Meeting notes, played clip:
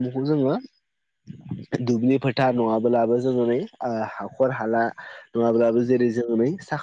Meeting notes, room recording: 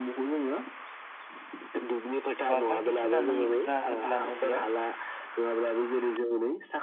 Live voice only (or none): बा बायदिसिना नों जाहोदलानो बेयाव